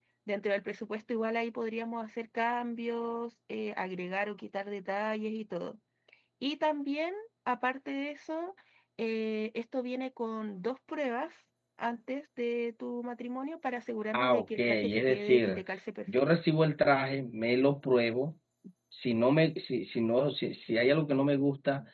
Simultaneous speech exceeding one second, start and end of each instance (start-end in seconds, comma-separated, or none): 14.1-15.6